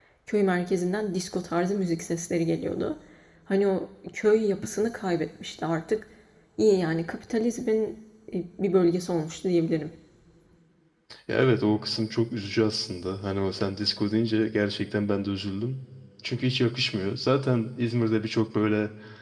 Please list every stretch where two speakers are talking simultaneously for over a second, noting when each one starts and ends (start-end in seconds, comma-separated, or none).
none